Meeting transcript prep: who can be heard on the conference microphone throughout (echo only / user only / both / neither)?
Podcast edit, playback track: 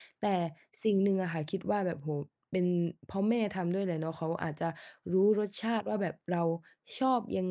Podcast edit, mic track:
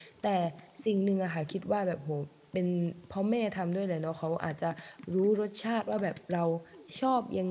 echo only